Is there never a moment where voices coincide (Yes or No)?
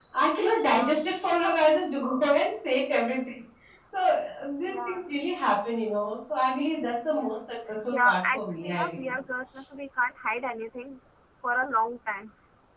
No